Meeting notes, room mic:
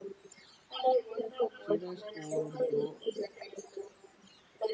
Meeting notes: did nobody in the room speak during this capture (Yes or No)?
No